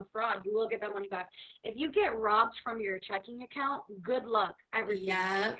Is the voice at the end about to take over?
Yes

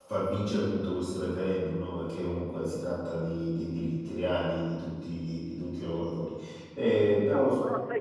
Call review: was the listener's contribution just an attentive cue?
No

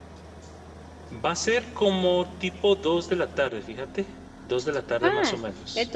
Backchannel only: No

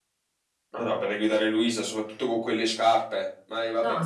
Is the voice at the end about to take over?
Yes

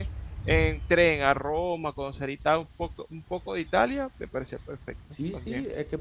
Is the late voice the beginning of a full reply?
Yes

